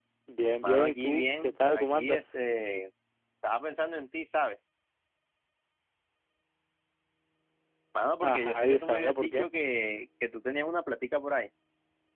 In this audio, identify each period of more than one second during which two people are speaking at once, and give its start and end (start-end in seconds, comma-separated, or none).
0.6-2.2, 8.2-9.5